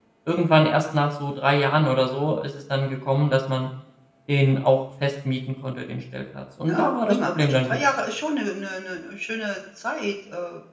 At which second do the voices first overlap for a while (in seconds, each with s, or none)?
6.7 s